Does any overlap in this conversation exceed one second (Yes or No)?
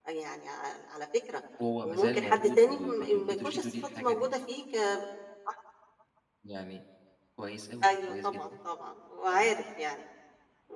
Yes